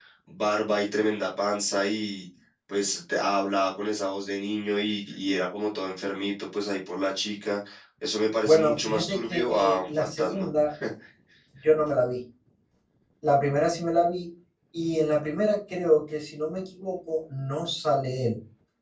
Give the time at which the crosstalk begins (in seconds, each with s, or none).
8.4 s